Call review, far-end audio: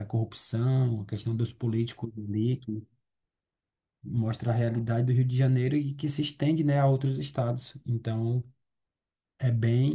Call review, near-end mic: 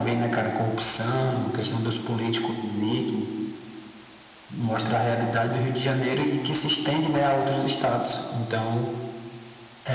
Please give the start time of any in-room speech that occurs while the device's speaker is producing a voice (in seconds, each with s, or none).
none